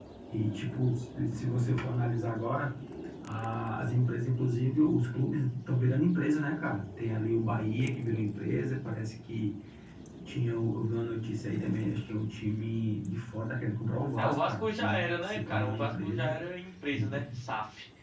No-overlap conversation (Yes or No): No